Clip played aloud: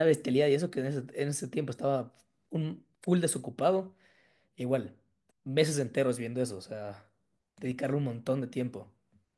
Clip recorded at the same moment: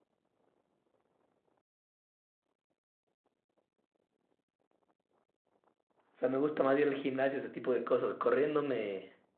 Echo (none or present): none